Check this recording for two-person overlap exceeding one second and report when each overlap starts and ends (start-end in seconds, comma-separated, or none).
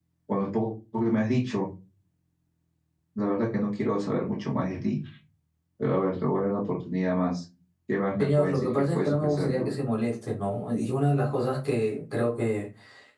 8.2-9.7